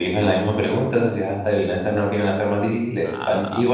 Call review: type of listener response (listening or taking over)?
taking over